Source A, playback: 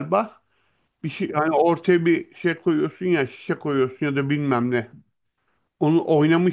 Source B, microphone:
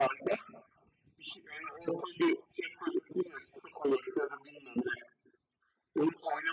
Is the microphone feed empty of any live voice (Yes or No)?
Yes